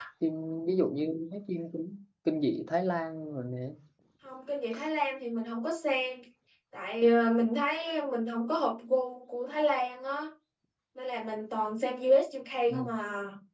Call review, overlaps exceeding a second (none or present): none